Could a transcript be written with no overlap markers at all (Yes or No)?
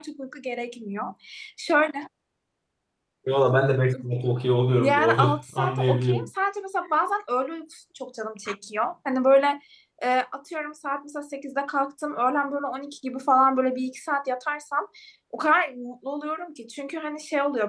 No